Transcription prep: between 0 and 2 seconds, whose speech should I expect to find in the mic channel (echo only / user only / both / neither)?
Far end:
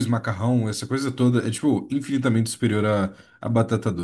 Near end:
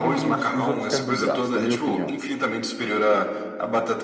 both